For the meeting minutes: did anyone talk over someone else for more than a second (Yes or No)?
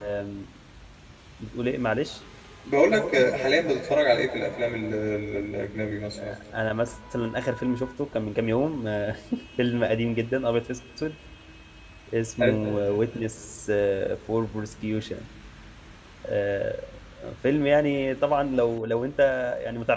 No